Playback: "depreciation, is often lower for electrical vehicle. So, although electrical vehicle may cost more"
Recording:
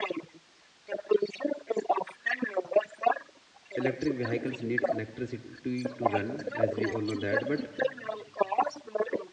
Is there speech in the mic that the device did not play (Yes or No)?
Yes